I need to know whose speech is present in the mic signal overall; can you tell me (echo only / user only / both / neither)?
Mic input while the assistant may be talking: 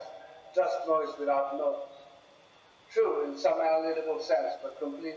echo only